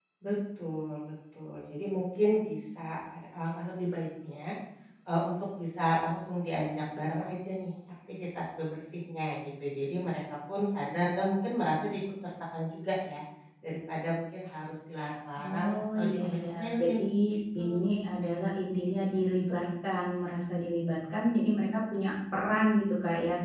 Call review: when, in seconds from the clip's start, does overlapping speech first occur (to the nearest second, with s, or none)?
15 s